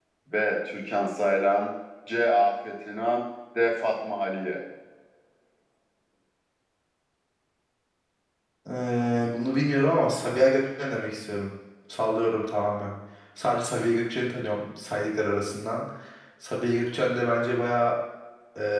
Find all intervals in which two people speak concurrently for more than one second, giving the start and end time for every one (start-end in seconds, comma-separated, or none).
none